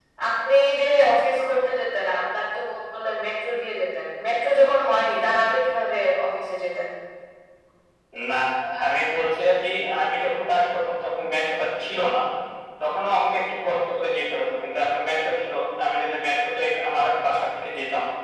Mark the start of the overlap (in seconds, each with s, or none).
none